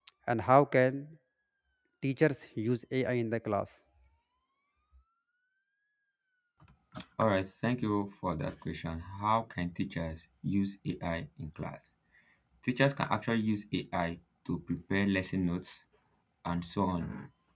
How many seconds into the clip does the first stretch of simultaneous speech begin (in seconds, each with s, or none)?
none